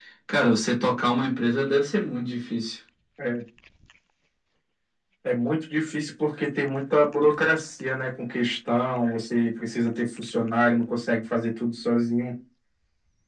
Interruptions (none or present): none